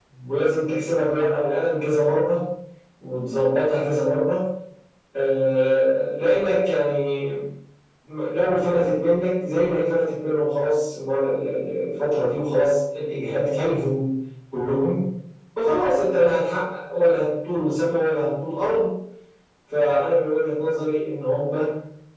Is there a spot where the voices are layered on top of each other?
No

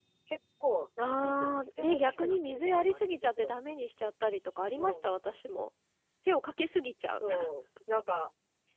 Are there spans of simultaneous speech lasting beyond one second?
Yes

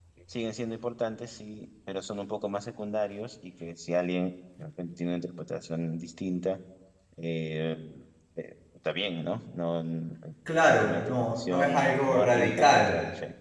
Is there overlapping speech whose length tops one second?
Yes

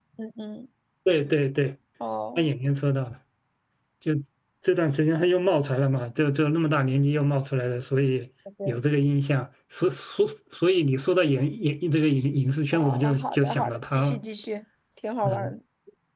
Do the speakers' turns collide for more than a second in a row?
Yes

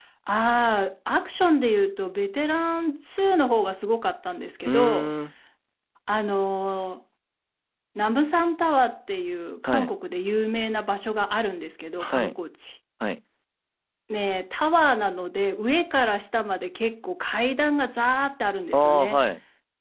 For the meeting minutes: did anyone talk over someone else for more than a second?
No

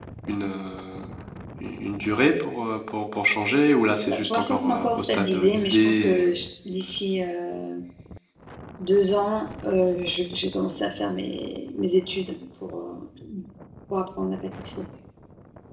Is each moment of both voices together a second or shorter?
No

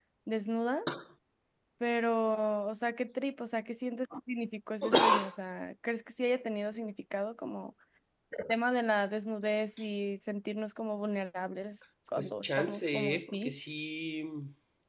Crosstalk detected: Yes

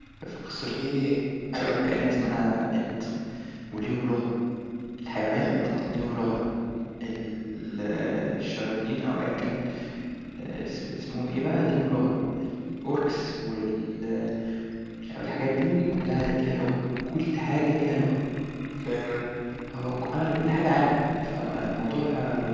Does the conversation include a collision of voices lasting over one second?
No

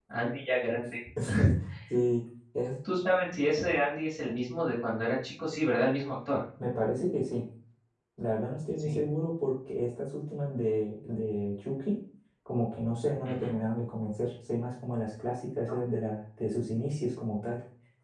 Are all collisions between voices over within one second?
Yes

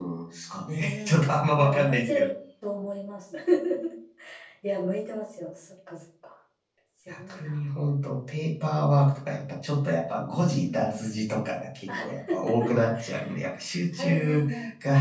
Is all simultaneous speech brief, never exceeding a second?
No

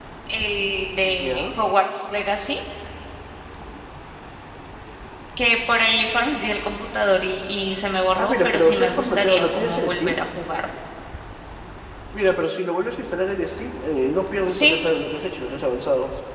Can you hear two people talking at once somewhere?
Yes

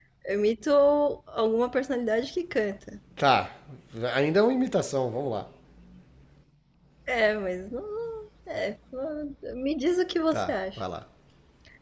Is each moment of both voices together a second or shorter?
Yes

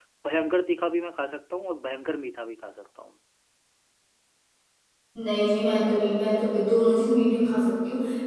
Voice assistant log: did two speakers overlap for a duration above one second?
No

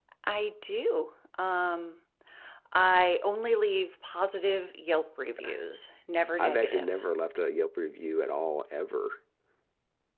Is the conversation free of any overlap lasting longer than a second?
Yes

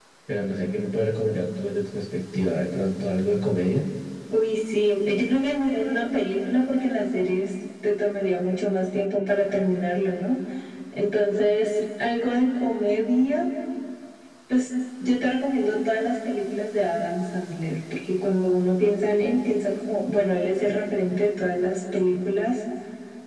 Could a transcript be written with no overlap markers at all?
Yes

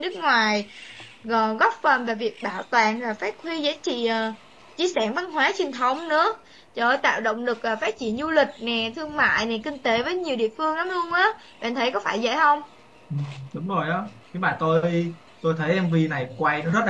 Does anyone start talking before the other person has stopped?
No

